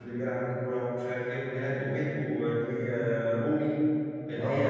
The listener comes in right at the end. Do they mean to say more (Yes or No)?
No